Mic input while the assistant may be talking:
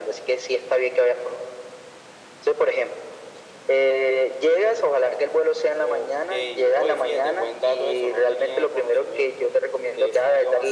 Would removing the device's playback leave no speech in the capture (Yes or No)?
Yes